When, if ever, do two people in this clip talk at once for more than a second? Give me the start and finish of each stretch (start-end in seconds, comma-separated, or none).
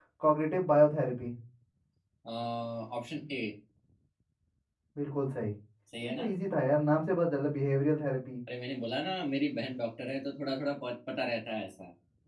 none